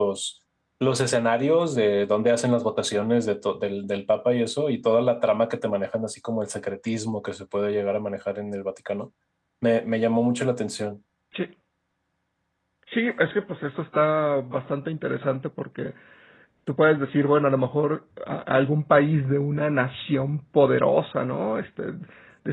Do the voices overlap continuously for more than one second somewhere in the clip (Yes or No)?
No